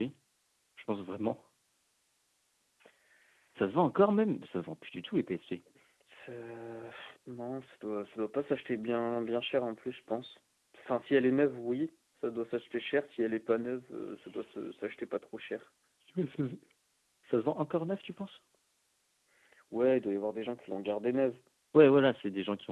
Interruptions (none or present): none